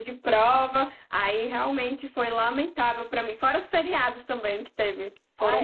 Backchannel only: No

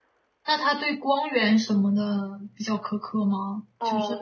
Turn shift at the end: Yes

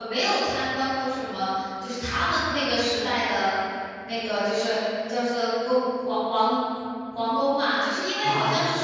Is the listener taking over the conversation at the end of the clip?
No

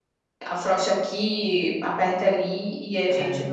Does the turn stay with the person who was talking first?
Yes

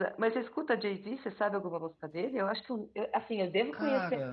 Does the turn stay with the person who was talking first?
Yes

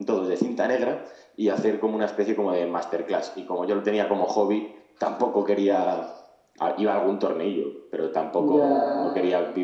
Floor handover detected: No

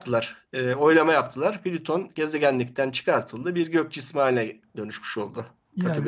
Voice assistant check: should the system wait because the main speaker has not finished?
No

